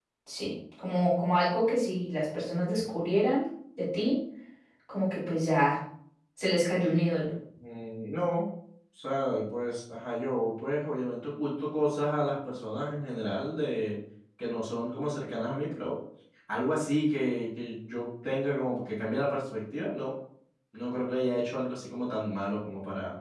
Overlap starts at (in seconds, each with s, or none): none